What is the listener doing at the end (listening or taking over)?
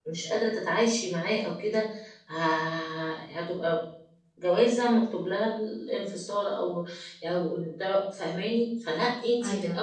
listening